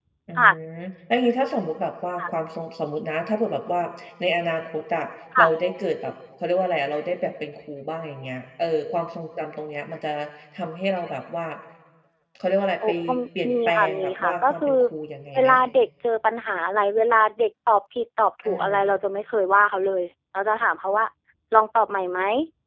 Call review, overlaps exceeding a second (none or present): present